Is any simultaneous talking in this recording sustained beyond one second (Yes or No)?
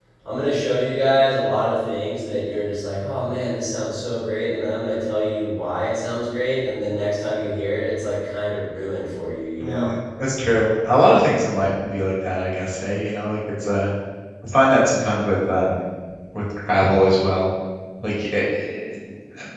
No